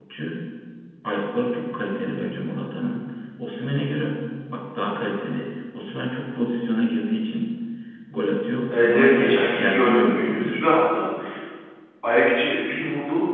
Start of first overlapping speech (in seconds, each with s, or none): 8.7 s